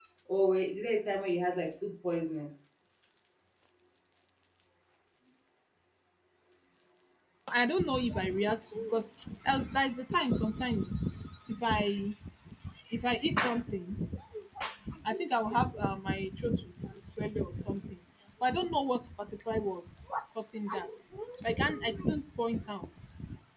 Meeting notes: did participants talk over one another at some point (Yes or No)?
No